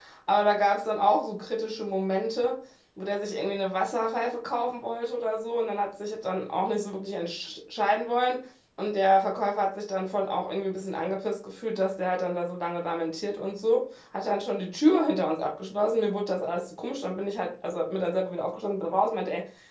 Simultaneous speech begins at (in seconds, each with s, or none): none